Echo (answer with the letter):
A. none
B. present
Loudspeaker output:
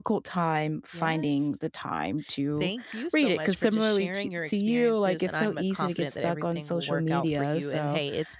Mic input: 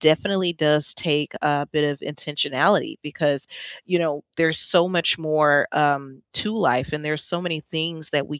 A